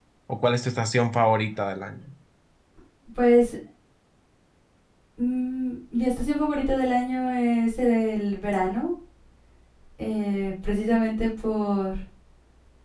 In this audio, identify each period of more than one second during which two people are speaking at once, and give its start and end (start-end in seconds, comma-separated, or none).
none